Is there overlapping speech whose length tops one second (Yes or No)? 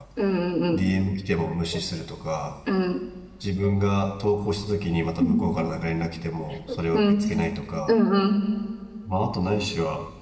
No